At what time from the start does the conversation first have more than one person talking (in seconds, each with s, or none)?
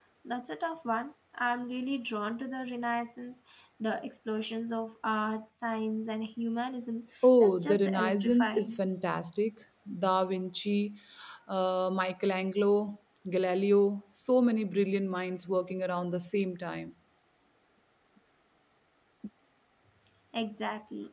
7.2 s